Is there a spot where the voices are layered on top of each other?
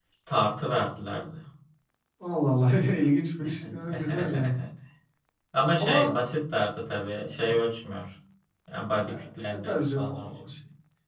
Yes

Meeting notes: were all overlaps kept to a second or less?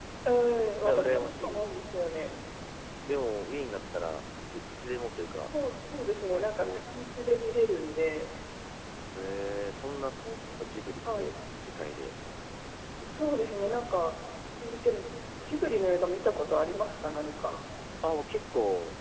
No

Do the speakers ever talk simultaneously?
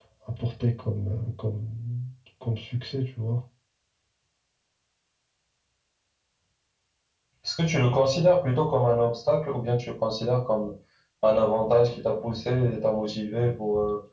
No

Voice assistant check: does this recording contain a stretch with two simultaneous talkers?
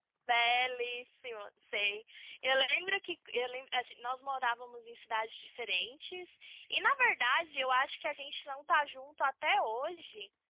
No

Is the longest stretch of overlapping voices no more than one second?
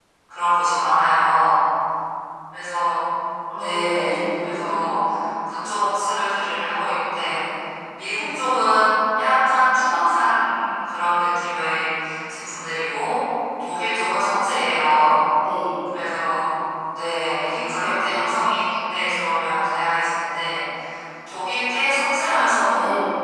No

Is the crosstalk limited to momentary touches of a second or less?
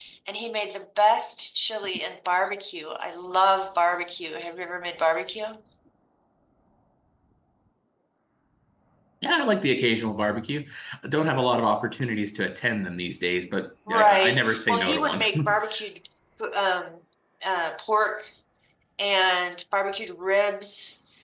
No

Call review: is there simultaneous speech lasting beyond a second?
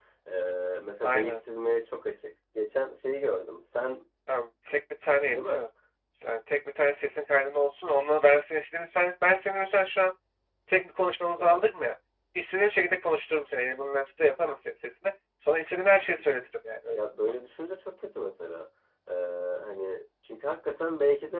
No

